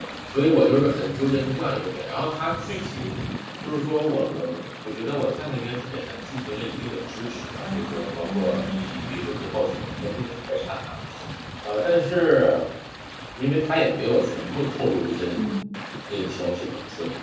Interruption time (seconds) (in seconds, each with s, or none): 7.6 s